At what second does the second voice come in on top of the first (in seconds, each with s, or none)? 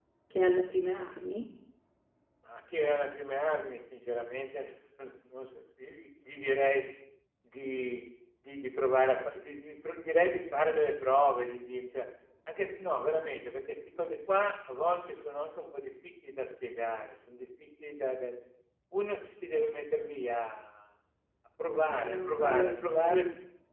21.9 s